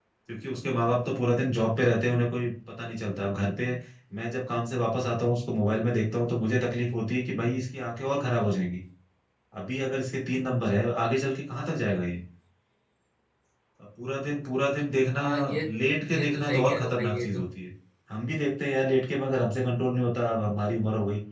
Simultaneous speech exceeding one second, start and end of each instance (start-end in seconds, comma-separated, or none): 16.1-17.4